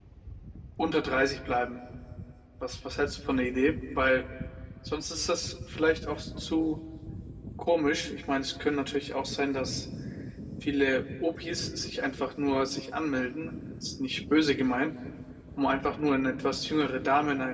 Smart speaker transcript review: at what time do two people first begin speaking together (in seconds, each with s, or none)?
none